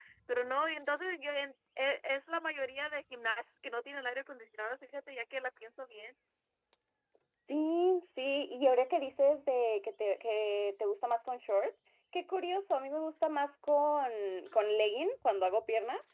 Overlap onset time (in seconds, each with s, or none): none